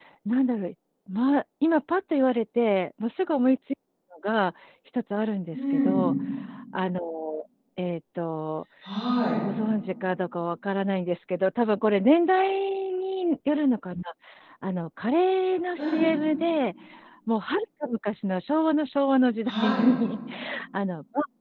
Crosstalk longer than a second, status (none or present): none